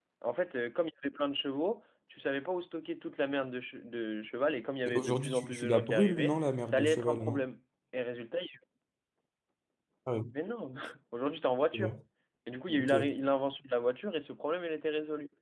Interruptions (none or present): present